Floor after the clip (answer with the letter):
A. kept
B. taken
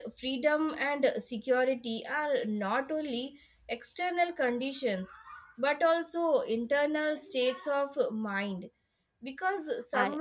A